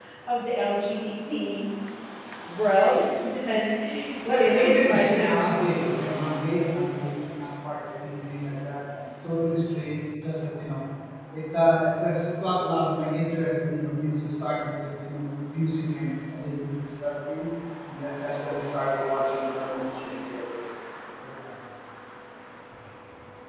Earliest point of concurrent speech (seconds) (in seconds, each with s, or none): 4.3 s